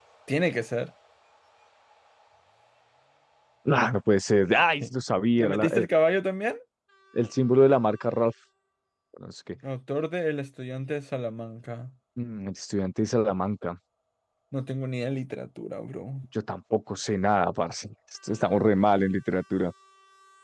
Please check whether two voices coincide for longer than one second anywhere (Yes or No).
No